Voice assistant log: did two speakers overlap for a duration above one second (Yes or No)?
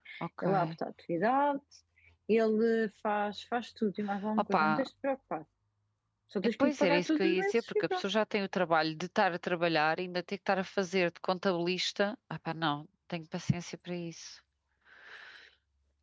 Yes